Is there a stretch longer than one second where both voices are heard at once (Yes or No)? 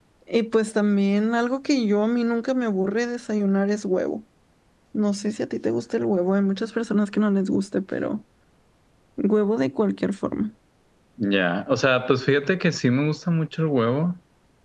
No